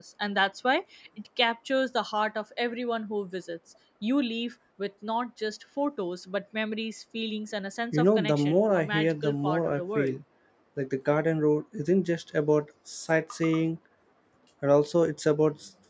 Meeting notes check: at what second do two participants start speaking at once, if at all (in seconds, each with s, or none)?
7.9 s